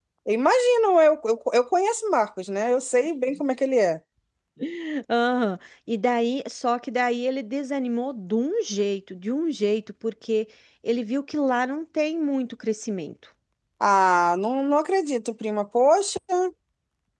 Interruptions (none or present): none